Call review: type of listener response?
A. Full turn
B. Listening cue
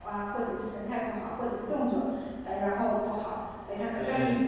B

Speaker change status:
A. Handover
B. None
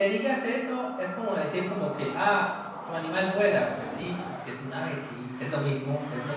A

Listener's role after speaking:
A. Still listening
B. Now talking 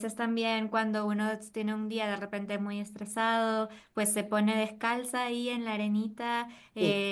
A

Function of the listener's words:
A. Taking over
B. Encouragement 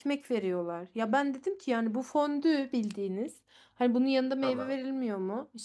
B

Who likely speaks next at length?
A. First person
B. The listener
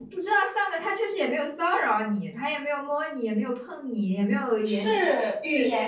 B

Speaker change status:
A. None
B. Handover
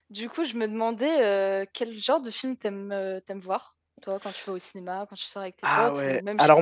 B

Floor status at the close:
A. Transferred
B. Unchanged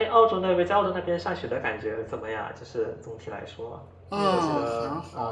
A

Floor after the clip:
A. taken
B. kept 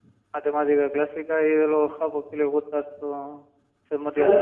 A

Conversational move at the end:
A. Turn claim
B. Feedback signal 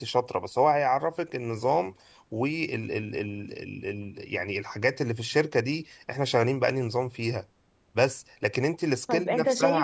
A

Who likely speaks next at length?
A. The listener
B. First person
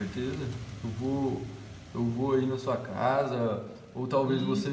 B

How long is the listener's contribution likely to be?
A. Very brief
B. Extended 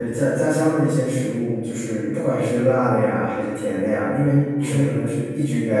A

